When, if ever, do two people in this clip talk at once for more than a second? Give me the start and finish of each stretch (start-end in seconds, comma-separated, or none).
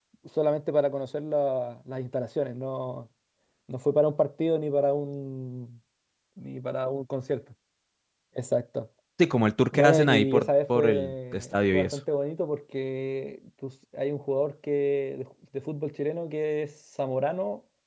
9.7-12.0